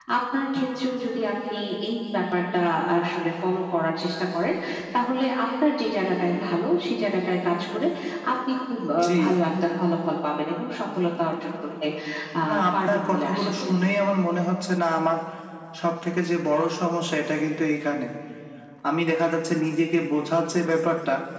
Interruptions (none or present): present